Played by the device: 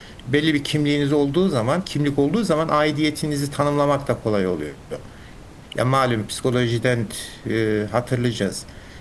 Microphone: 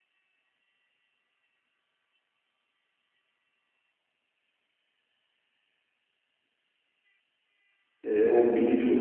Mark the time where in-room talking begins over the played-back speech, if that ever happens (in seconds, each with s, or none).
8.0 s